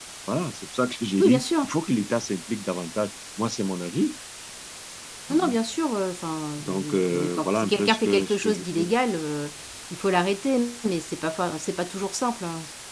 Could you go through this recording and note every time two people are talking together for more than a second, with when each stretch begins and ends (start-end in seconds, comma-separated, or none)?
6.6-8.9